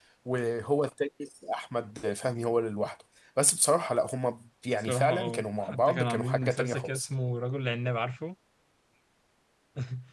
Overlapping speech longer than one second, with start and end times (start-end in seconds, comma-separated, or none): 4.8-7.1